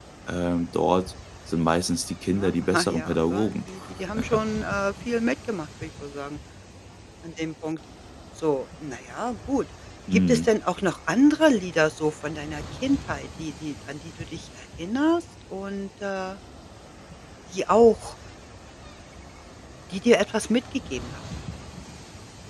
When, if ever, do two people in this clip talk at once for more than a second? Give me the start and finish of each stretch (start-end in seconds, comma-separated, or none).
2.4-3.6